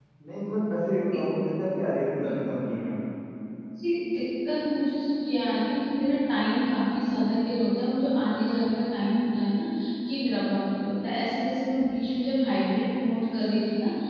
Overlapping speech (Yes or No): No